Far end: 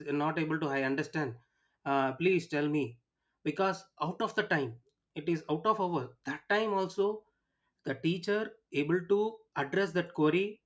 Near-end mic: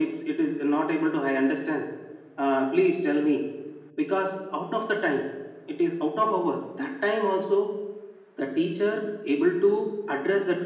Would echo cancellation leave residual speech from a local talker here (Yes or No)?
No